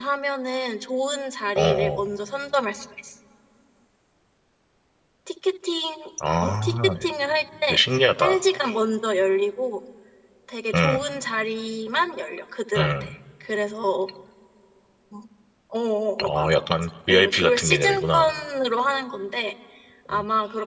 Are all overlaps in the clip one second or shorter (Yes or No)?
No